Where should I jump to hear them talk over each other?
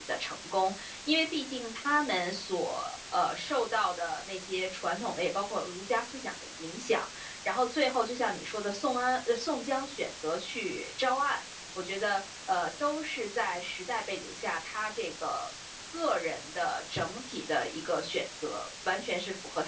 none

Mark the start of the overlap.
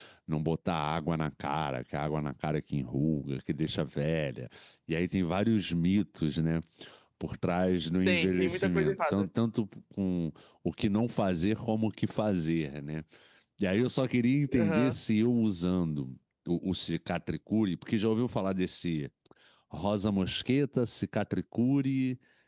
8 s

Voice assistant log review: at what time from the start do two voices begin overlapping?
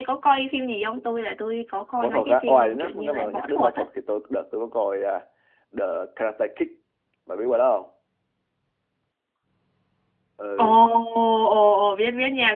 2 s

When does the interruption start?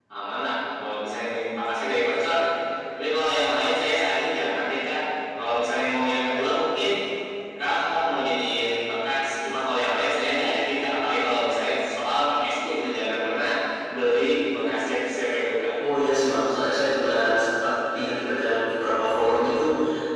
none

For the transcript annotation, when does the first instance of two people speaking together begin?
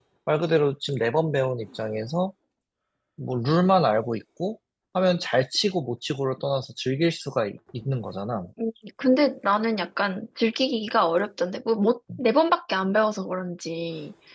none

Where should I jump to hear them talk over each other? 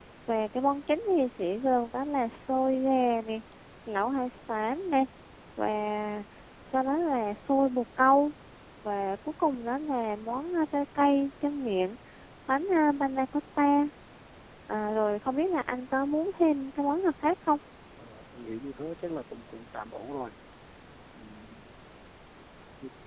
none

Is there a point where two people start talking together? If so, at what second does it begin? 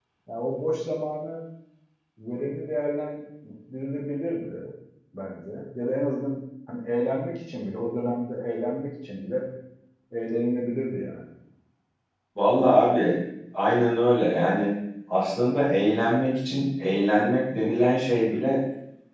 none

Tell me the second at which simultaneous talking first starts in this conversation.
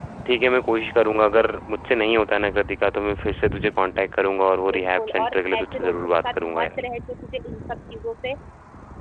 5 s

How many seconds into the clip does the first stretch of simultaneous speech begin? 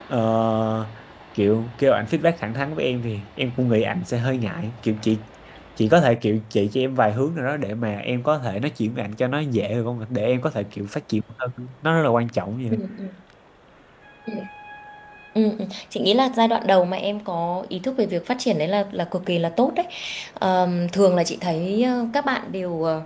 none

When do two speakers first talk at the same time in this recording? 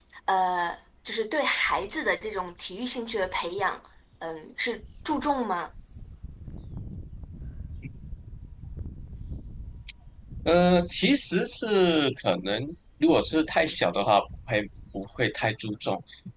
none

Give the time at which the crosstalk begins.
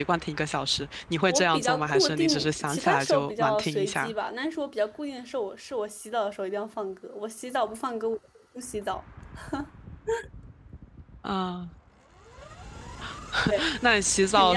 1 s

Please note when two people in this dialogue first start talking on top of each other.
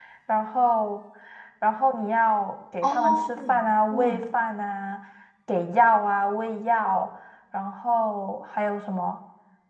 3 s

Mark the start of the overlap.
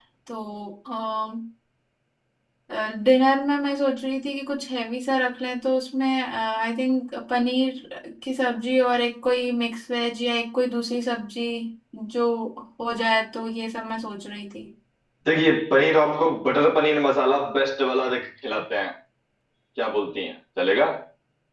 none

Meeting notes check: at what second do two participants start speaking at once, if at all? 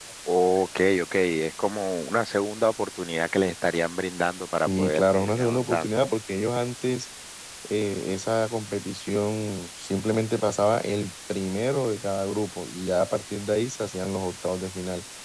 5 s

